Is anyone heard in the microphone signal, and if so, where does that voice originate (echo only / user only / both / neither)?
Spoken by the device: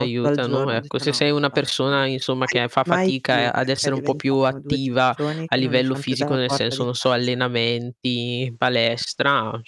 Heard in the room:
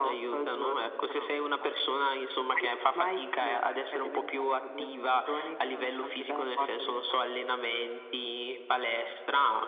echo only